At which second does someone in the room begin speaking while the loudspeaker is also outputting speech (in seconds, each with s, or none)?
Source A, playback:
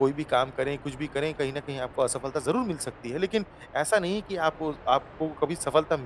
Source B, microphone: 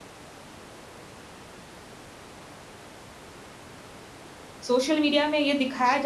4.7 s